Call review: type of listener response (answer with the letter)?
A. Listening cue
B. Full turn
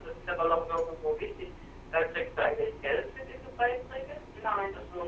B